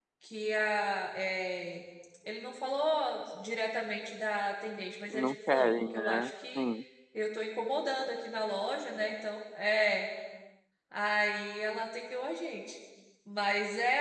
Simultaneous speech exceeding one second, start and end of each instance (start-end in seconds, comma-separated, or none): 5.1-6.7